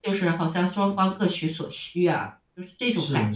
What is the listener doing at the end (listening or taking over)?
taking over